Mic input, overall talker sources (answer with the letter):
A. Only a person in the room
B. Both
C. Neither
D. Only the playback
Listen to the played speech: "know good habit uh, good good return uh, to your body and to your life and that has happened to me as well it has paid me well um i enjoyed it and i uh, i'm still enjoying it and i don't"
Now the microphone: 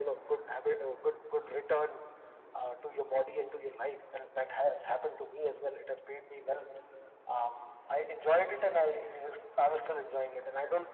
D